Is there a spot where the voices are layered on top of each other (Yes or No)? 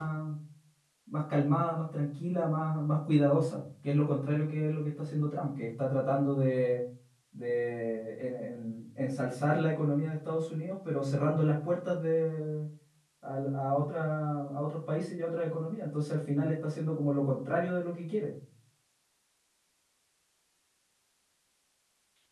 No